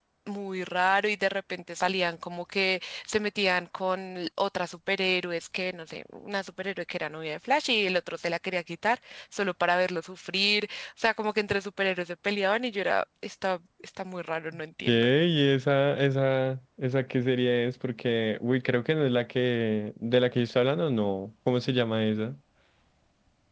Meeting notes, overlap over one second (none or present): none